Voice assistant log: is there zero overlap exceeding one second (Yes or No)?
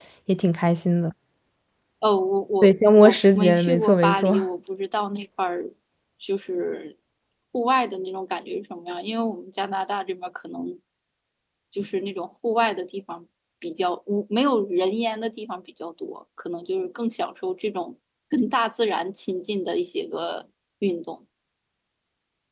No